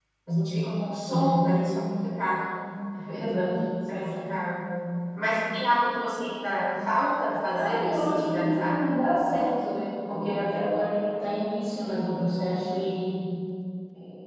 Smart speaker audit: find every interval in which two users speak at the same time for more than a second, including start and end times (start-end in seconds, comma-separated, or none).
7.6-8.9